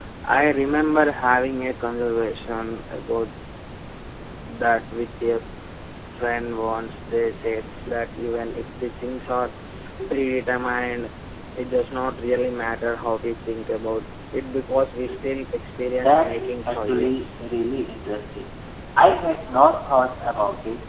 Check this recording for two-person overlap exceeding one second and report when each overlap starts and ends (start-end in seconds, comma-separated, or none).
16.0-17.3